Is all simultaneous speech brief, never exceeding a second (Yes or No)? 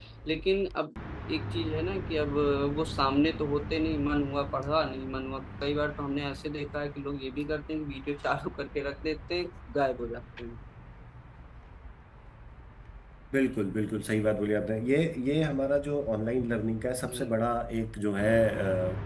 Yes